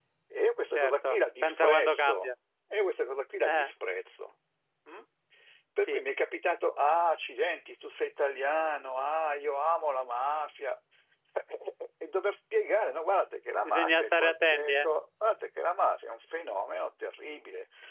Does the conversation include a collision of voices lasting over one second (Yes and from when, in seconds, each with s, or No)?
Yes, from 0.7 s